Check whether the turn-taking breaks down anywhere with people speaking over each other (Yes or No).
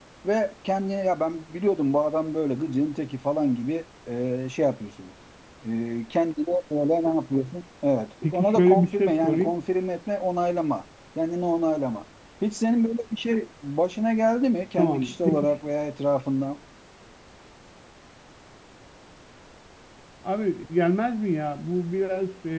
Yes